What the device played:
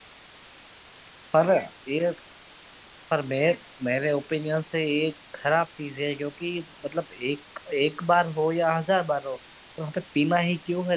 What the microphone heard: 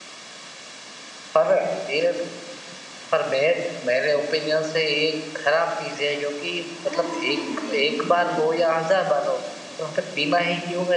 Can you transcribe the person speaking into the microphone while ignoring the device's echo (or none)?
अच्छा नहीं नहीं